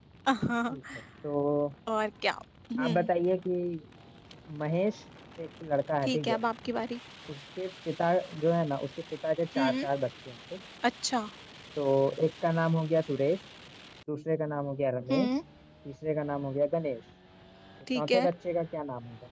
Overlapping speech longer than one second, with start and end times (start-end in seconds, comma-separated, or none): none